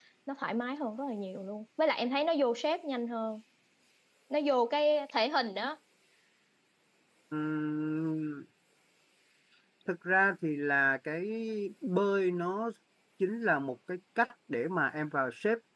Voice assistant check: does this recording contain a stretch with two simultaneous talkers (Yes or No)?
No